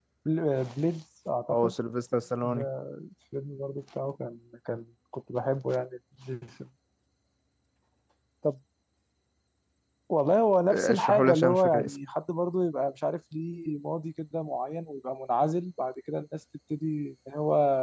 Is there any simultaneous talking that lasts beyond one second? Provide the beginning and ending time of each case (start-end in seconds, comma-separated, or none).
10.7-11.9